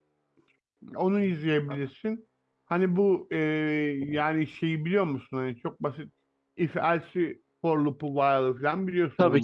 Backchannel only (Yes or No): No